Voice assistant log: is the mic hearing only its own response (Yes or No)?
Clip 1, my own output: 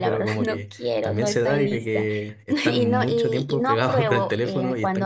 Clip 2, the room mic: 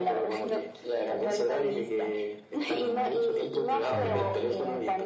No